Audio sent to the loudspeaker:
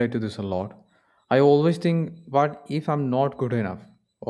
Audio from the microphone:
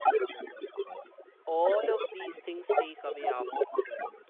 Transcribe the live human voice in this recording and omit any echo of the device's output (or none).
all of these things take away our focus.